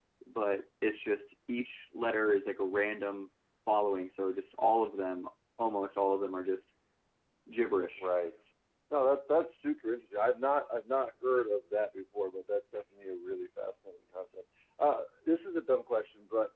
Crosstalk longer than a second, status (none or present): none